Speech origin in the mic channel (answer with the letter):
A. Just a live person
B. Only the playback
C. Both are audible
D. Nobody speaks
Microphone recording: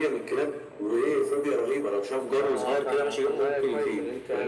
B